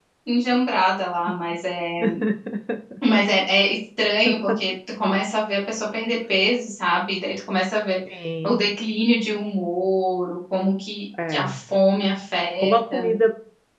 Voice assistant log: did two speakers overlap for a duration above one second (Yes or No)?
No